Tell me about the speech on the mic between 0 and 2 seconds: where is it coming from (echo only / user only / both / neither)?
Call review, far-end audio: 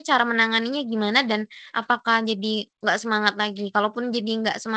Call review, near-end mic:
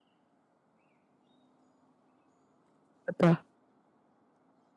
neither